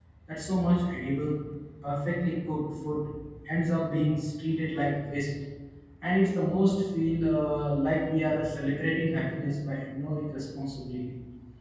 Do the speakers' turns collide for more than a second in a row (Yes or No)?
No